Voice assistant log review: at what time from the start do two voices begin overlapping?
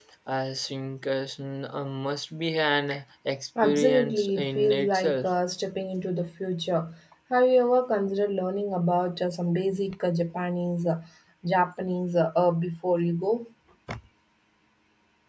3.6 s

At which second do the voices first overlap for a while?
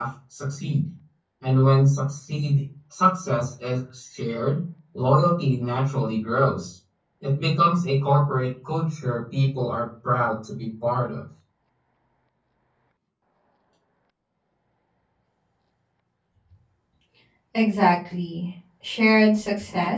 none

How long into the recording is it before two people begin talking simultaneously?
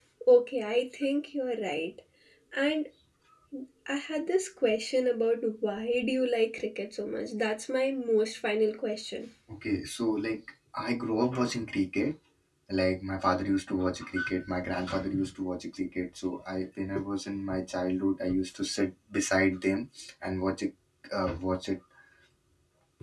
none

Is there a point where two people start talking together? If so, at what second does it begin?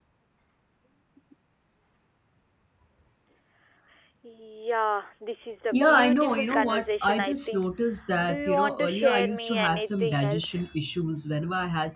5.7 s

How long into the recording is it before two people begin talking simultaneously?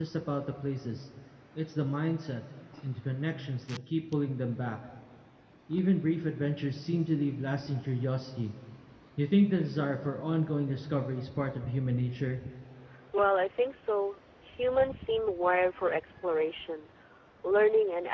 none

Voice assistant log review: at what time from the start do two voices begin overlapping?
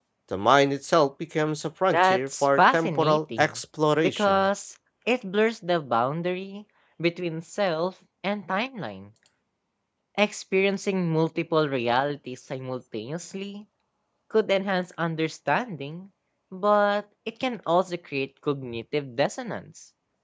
1.9 s

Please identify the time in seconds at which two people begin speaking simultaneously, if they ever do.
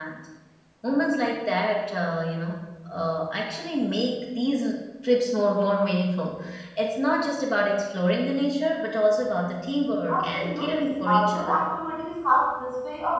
10.1 s

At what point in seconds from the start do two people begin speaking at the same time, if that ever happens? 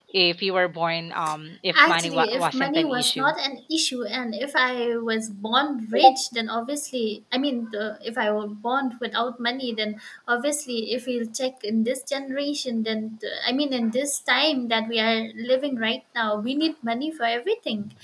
1.7 s

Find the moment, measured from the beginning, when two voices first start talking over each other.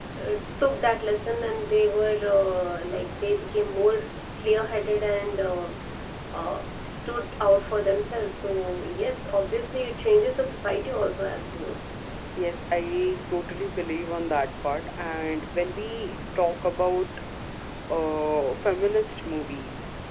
none

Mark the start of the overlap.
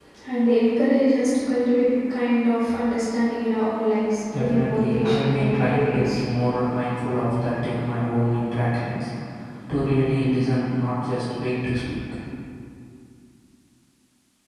4.3 s

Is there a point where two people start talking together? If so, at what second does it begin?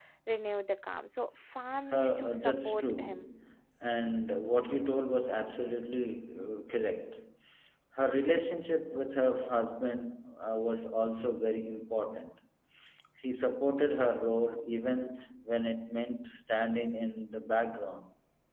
1.7 s

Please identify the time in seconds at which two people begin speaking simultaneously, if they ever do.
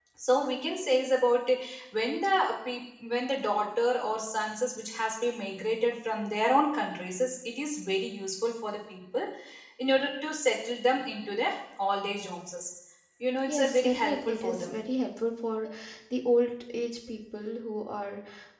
13.5 s

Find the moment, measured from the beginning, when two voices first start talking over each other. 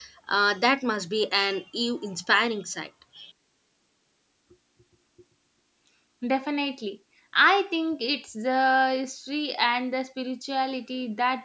none

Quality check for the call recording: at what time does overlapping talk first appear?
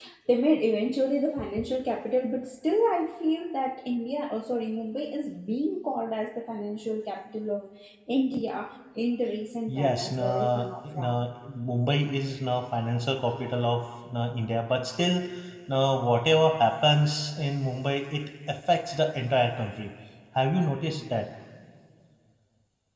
9.7 s

